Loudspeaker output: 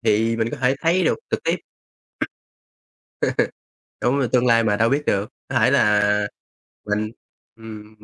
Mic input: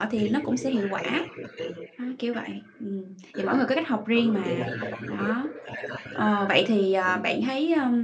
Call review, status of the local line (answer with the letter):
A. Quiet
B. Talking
B